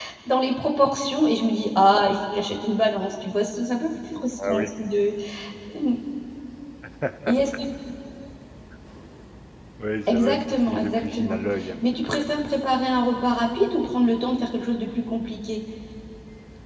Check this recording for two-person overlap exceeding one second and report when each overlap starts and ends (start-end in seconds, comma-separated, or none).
10.1-11.4